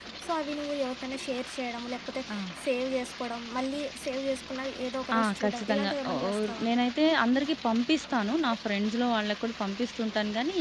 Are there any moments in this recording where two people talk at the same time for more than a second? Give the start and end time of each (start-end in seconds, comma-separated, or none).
5.2-6.7